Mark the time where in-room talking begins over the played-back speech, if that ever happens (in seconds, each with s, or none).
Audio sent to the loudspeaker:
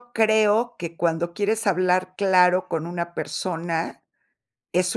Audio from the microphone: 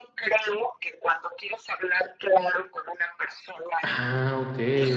3.8 s